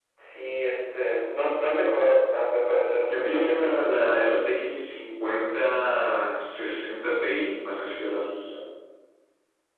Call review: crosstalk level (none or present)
present